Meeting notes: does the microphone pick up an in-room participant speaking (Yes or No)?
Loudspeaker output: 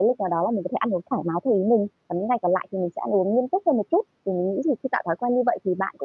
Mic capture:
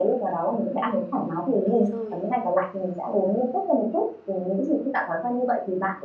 Yes